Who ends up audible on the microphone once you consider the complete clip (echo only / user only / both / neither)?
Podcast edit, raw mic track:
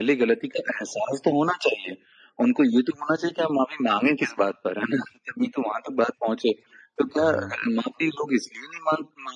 both